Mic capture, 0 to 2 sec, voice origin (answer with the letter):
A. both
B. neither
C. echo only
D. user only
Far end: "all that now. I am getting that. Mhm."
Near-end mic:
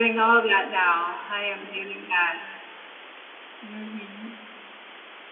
C